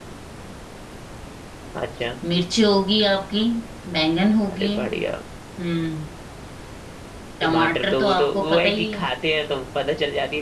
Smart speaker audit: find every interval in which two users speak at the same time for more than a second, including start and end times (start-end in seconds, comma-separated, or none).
7.4-9.0